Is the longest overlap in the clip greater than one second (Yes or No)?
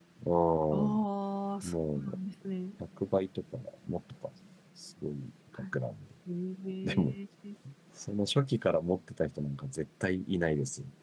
No